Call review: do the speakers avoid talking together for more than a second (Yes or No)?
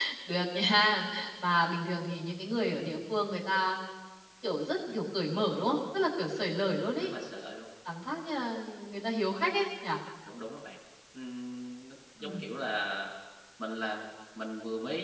Yes